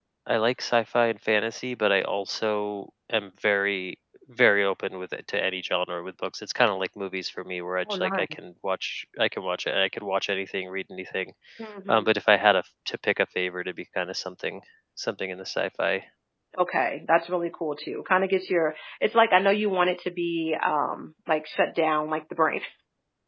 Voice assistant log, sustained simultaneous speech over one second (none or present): none